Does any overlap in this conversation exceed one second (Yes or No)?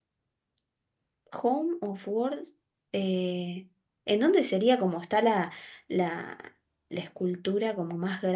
No